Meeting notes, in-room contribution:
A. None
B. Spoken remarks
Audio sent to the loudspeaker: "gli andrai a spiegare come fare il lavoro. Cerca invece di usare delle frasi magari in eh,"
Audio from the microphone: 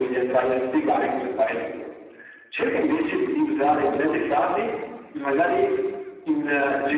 A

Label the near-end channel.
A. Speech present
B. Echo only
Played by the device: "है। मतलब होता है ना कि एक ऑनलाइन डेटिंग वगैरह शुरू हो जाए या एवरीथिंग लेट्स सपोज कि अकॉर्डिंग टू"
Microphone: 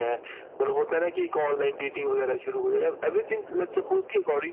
B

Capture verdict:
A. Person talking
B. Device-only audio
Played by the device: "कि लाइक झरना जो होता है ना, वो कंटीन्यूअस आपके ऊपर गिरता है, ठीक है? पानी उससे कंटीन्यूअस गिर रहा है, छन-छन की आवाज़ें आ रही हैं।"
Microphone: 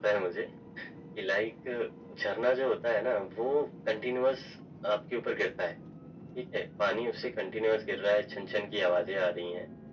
B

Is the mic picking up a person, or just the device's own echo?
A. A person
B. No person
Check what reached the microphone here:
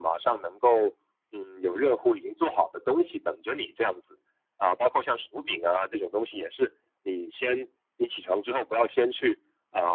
B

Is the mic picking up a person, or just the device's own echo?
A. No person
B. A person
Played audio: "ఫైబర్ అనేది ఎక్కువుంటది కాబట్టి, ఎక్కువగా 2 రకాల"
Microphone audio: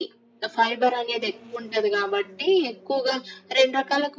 A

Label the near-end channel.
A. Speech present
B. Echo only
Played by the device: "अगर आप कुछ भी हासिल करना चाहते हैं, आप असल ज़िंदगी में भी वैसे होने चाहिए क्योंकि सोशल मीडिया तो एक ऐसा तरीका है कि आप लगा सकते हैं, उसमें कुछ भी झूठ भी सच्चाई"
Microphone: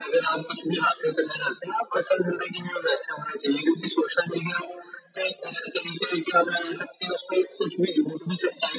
B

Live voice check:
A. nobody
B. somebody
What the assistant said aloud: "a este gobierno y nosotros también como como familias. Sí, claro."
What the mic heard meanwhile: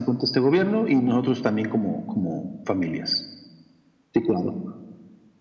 A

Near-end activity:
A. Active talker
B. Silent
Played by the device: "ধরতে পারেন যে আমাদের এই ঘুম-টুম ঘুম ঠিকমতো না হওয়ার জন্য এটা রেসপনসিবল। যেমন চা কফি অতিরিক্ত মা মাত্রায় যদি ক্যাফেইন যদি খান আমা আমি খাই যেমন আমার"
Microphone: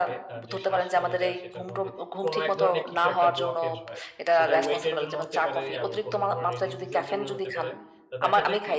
A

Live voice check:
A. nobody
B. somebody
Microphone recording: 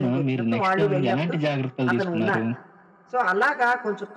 B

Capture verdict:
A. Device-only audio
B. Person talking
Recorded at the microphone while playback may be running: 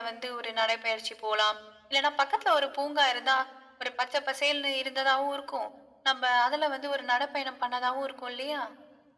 A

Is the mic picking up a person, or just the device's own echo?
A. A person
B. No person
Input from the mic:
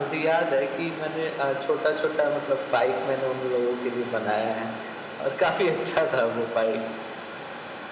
B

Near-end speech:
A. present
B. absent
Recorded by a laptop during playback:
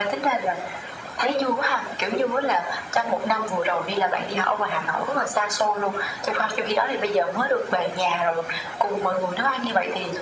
B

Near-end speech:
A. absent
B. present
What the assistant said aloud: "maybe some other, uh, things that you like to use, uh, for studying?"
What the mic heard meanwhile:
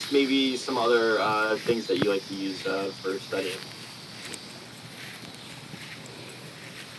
A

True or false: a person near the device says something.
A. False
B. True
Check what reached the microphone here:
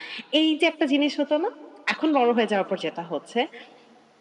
A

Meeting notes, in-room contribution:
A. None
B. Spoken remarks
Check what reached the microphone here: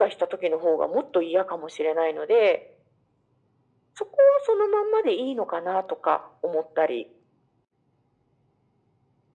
A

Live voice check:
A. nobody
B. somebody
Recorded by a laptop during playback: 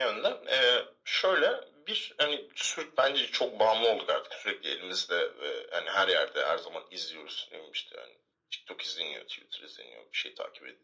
A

